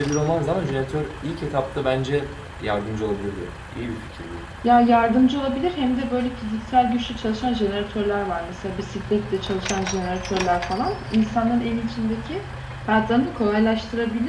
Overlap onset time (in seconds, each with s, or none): none